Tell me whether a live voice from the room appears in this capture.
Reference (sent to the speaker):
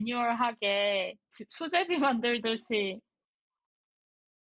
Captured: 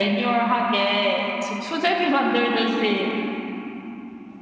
No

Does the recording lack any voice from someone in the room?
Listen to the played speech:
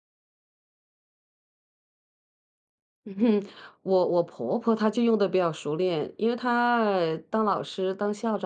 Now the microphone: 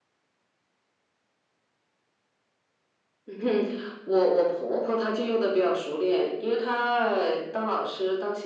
Yes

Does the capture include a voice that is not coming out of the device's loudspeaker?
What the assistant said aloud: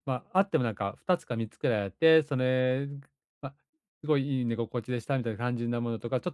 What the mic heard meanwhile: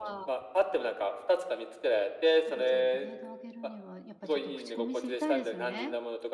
Yes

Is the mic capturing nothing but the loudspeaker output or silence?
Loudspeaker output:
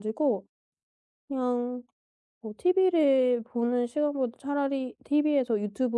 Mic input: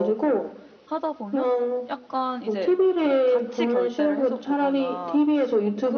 No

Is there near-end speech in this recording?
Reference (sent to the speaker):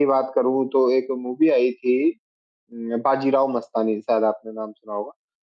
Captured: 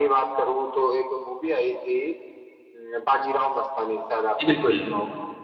Yes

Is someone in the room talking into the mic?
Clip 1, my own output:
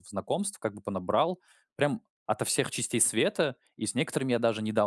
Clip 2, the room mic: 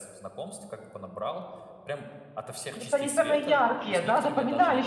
Yes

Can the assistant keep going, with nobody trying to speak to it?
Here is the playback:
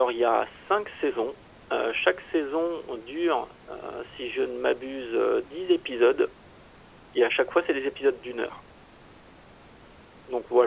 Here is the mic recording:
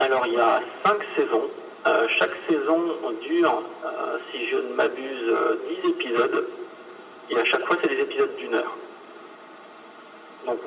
Yes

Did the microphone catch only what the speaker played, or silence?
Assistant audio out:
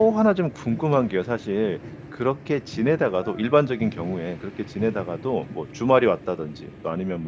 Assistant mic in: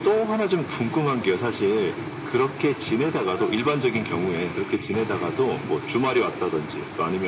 Yes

